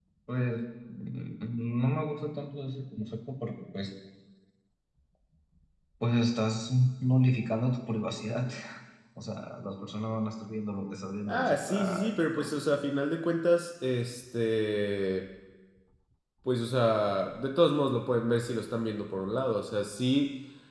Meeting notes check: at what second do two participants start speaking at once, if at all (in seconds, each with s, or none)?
11.3 s